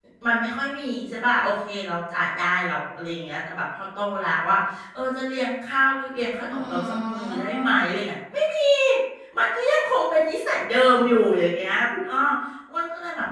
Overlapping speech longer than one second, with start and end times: 6.5-7.8

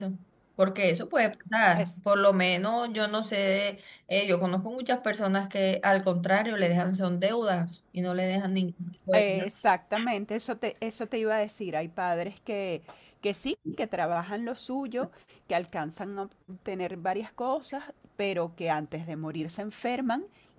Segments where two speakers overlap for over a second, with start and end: none

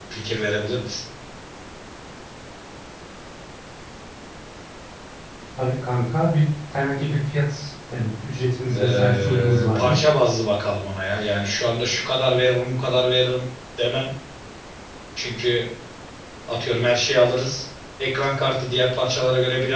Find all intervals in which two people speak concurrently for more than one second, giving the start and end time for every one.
8.7-10.0

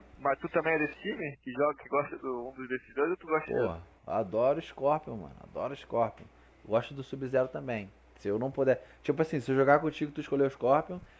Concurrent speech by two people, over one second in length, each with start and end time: none

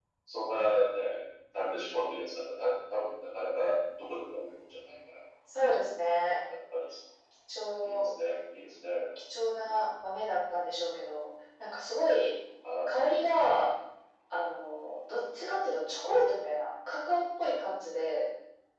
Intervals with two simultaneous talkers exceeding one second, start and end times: none

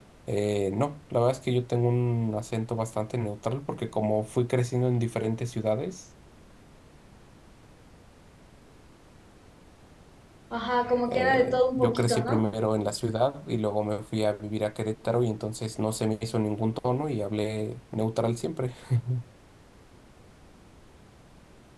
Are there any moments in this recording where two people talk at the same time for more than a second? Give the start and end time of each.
11.1-12.5

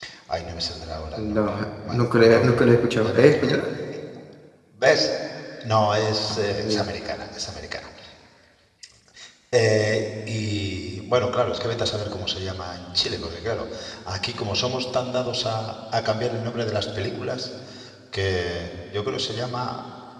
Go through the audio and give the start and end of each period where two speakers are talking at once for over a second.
1.2-3.6

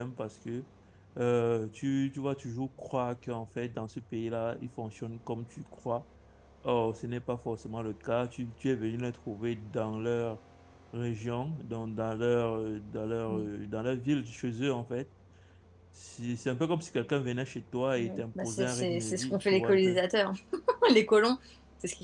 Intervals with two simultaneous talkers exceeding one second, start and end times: 18.0-20.0

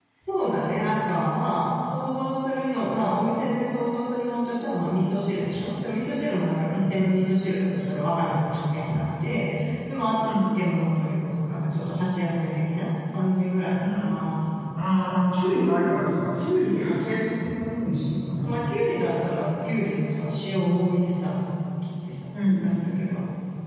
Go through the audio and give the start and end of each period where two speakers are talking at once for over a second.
none

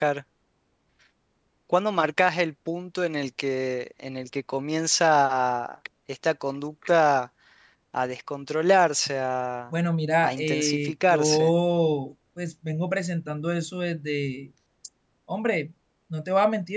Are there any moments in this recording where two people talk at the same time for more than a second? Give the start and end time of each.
10.2-11.5

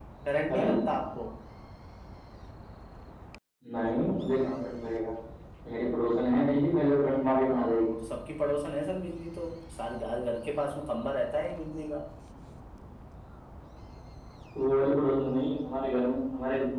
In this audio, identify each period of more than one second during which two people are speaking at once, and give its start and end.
none

